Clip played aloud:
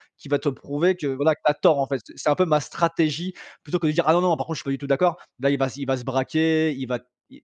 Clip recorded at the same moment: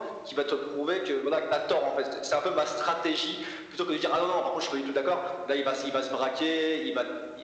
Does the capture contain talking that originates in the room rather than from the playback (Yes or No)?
No